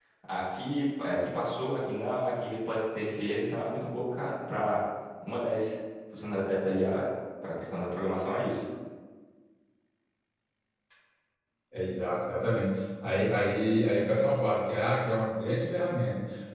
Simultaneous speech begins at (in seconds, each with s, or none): none